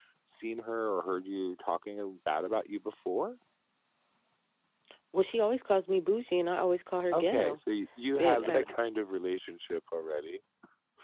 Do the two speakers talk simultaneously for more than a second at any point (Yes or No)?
No